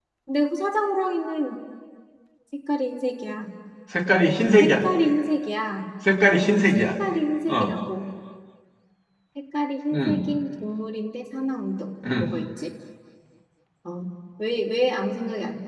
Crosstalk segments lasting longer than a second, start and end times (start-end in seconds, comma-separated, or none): none